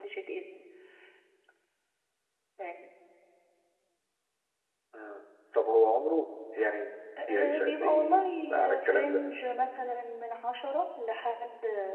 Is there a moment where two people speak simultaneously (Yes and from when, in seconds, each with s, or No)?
Yes, from 7.2 s